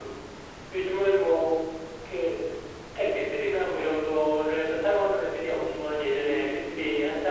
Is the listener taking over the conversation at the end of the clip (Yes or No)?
No